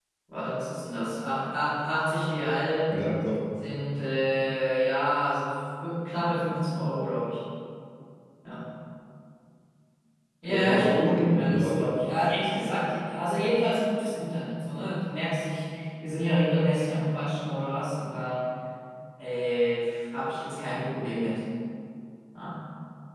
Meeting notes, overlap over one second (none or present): present